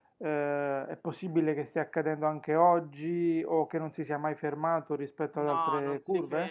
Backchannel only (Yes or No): No